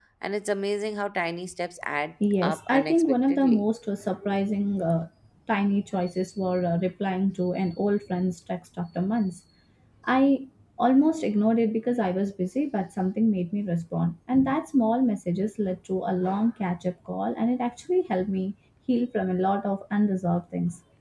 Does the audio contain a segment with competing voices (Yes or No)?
Yes